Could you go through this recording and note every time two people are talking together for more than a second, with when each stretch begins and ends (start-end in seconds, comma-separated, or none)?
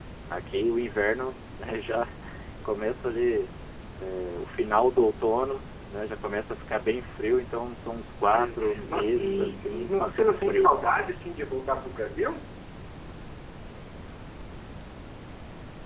8.3-10.7